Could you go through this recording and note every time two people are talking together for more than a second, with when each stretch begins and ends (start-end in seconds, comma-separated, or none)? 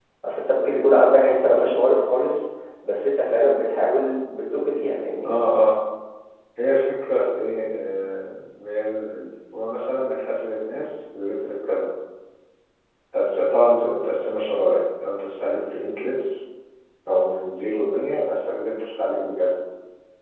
none